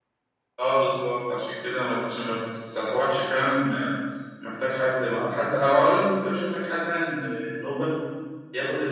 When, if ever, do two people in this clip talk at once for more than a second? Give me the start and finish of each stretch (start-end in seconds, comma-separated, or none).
none